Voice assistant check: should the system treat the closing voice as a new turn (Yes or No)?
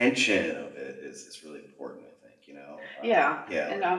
Yes